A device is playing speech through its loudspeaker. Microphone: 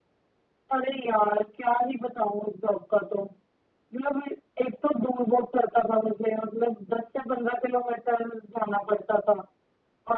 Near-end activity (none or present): none